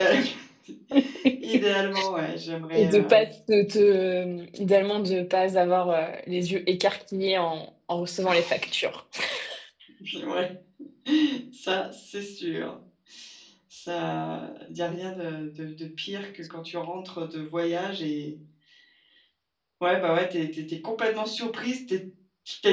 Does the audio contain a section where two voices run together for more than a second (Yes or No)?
No